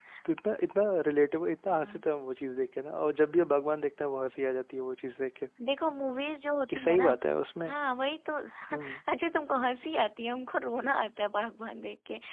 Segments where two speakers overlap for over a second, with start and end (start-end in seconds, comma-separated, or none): none